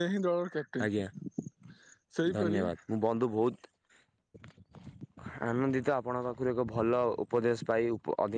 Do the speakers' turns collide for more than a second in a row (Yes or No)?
No